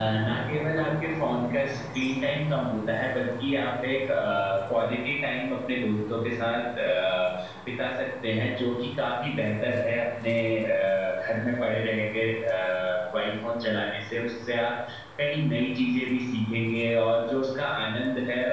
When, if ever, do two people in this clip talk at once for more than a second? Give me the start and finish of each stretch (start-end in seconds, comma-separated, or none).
none